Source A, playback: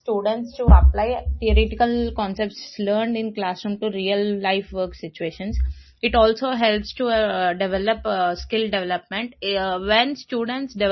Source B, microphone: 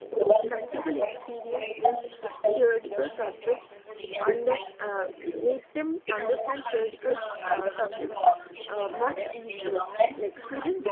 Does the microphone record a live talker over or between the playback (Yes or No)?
Yes